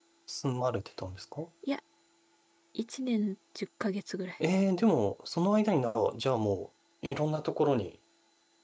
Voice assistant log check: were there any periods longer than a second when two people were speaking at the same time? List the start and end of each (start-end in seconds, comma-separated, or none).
none